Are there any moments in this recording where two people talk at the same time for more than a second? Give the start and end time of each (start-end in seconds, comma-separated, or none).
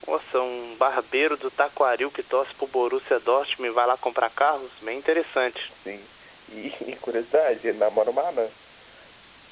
none